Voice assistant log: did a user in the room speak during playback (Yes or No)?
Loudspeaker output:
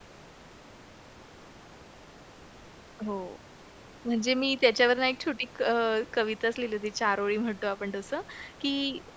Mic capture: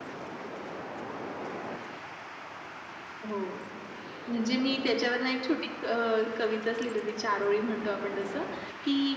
No